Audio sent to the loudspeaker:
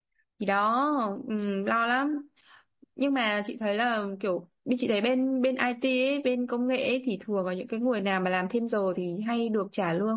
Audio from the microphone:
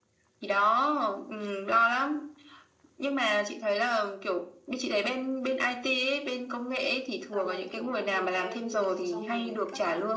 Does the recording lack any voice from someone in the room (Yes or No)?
No